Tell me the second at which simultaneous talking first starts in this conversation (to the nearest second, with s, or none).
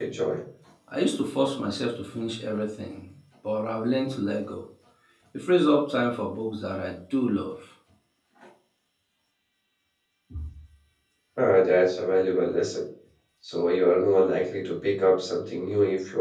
none